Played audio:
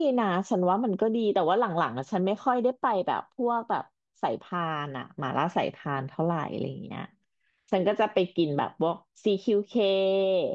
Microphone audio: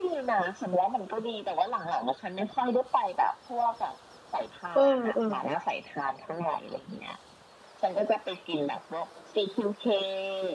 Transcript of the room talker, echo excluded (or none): เออเออ